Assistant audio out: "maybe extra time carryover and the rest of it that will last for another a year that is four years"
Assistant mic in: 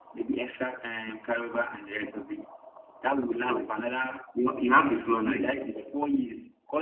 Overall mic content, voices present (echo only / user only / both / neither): both